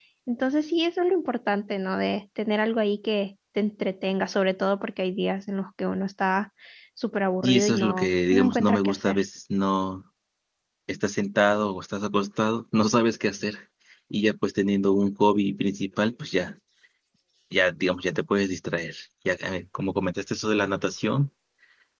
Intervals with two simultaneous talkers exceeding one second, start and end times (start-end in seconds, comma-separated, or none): 7.4-9.2